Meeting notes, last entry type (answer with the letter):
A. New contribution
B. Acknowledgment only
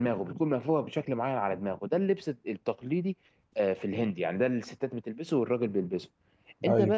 B